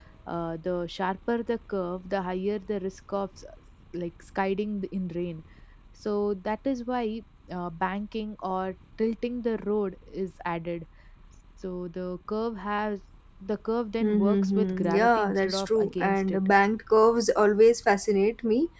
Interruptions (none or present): present